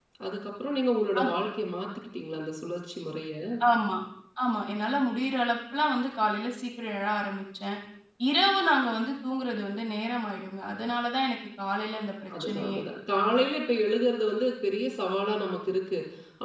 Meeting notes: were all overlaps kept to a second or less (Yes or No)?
Yes